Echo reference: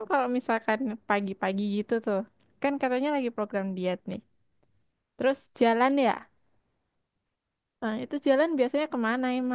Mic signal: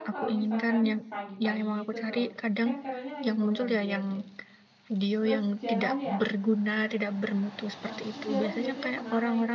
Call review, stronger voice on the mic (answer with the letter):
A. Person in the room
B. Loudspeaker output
A